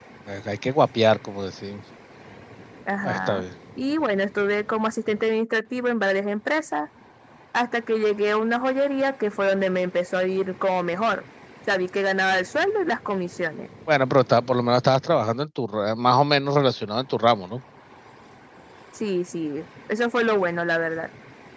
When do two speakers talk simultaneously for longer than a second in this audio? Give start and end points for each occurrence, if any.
none

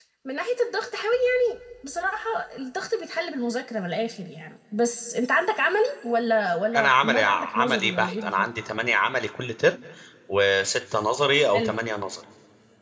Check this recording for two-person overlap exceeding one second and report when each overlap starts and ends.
6.8-8.5

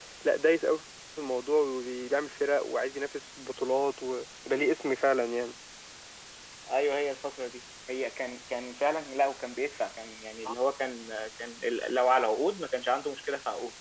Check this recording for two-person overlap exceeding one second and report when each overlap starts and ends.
none

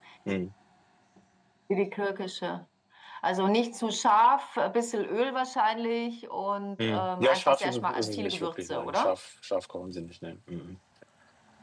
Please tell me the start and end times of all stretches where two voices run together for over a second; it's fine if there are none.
6.8-9.1

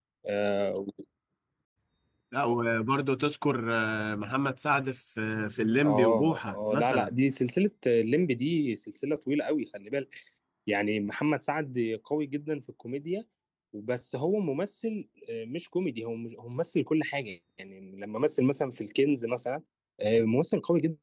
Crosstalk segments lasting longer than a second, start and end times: 5.8-7.1

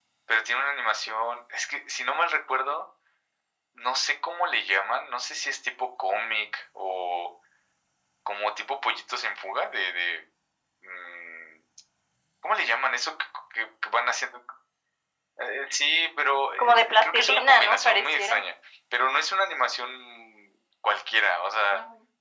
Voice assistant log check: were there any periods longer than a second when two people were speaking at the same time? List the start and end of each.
16.6-18.4

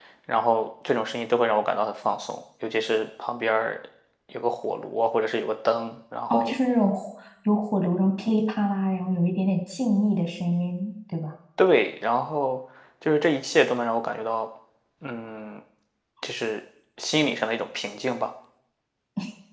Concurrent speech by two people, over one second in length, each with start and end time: none

